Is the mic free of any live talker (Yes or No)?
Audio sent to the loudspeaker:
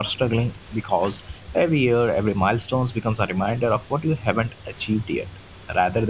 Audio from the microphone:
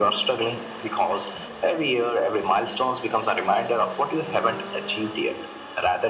Yes